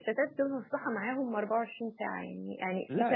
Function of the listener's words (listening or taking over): listening